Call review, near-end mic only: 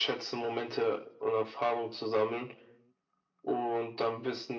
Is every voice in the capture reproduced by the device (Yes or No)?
Yes